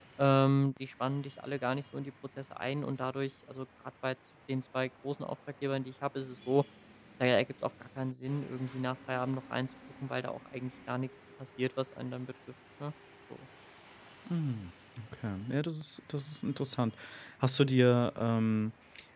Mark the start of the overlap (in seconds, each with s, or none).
none